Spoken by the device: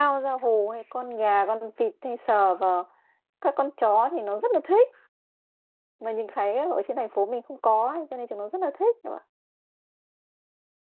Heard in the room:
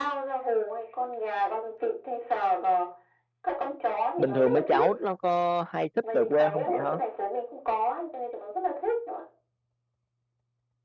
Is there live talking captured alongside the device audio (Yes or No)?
Yes